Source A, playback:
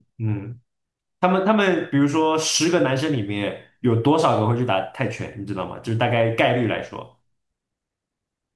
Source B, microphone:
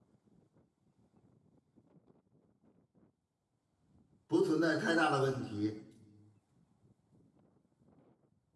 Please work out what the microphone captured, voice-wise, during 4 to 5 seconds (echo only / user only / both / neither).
user only